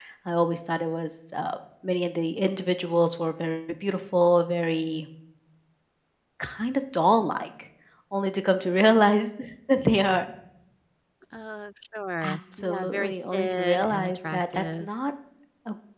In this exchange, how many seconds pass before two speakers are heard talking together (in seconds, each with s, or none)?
12.2 s